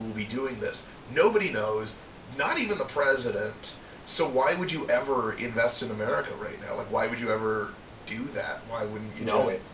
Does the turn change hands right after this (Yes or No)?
Yes